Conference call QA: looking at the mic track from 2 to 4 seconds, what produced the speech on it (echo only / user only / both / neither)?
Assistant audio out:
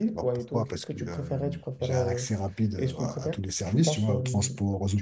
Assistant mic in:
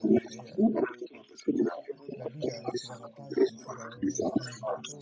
both